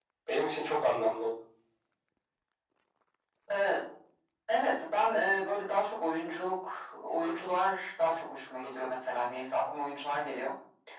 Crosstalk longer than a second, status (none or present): none